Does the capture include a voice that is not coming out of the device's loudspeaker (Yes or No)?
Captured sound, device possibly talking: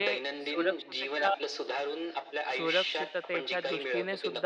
Yes